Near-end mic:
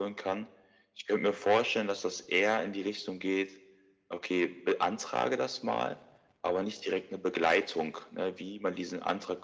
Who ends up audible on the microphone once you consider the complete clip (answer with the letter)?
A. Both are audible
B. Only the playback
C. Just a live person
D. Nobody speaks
B